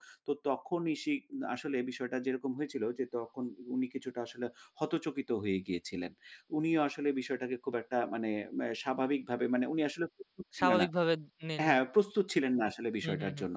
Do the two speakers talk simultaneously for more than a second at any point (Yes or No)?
No